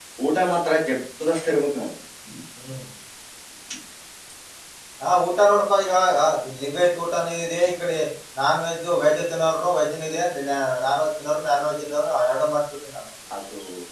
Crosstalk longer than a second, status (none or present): none